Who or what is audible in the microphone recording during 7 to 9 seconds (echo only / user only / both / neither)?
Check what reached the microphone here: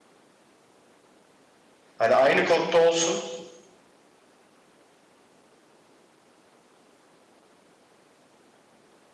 neither